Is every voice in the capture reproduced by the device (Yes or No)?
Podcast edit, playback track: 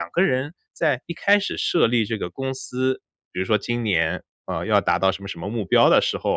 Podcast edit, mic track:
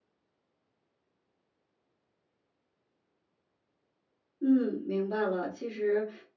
No